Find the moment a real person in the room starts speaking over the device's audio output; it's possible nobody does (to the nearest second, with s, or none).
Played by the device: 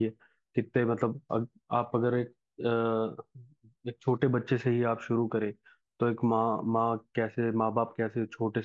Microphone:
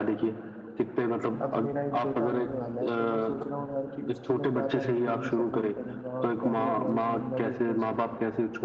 1 s